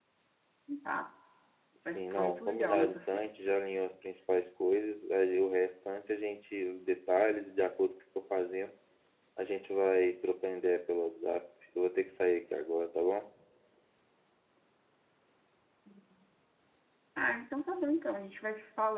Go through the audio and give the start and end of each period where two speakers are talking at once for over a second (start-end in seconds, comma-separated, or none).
1.9-3.6